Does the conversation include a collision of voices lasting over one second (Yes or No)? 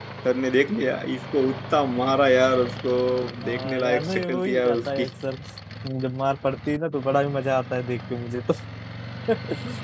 Yes